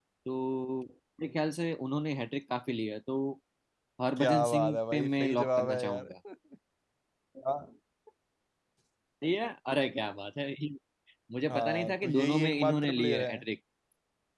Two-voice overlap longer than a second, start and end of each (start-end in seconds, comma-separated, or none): 4.2-6.1, 11.5-13.4